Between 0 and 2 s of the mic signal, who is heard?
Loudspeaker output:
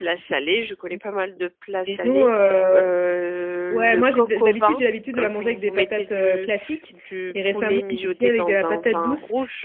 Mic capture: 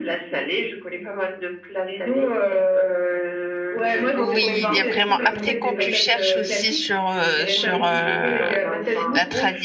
echo only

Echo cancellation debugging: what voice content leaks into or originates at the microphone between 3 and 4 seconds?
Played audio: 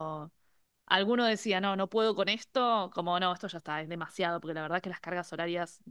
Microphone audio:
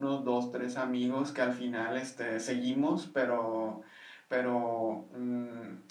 user only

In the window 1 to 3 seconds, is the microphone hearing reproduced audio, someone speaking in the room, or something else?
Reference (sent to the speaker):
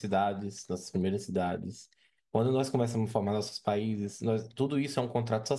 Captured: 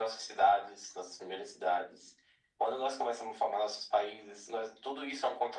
echo only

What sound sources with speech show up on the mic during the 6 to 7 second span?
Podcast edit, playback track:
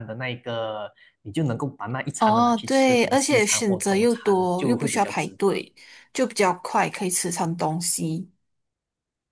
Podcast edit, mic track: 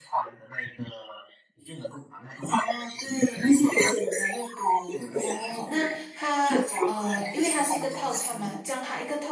both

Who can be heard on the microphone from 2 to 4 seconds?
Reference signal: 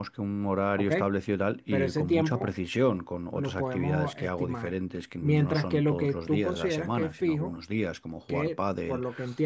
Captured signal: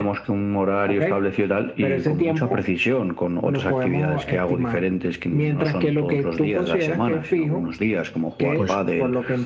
echo only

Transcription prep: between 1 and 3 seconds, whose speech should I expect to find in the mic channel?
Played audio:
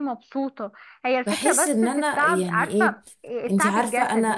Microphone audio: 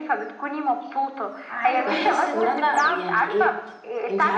both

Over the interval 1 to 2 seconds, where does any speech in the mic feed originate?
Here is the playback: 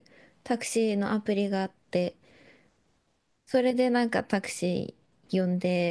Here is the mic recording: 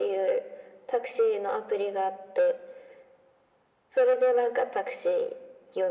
echo only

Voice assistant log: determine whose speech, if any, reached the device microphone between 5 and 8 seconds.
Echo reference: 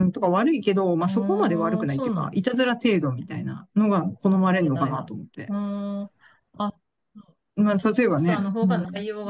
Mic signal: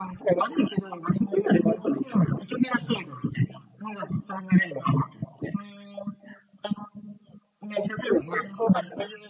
echo only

